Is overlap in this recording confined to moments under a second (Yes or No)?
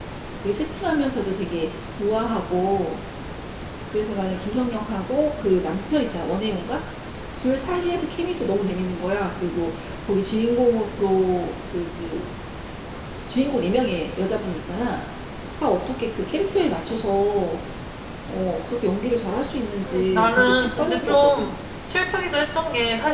No